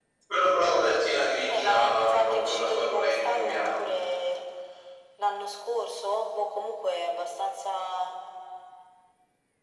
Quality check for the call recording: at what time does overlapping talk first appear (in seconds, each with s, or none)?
1.5 s